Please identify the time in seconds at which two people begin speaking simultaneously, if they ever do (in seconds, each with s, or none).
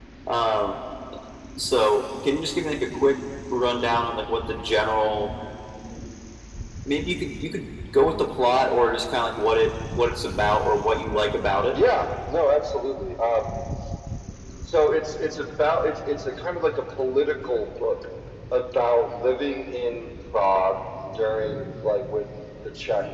none